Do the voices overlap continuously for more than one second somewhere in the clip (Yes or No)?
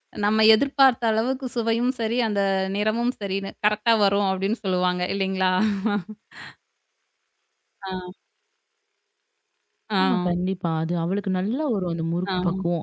No